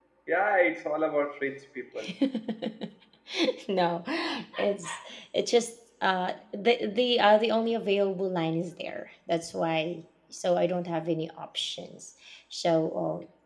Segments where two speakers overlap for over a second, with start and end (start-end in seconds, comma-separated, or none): none